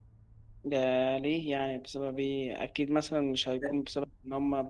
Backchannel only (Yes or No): Yes